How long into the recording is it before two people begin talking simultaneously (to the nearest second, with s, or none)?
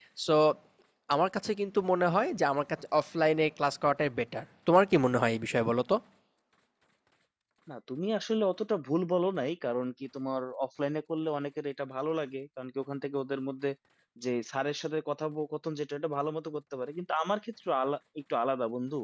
none